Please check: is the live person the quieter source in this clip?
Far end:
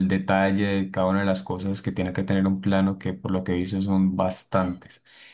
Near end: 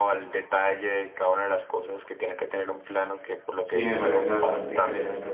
No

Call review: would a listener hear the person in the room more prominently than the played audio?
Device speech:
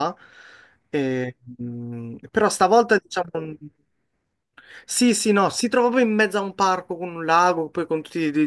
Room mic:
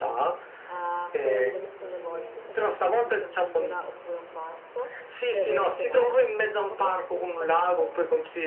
No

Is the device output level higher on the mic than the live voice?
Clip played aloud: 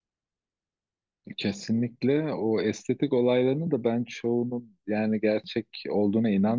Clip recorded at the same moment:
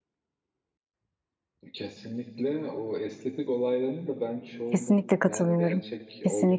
No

